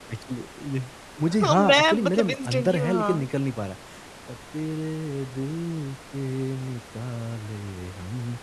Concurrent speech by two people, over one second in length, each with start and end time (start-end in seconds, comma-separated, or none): 1.4-3.2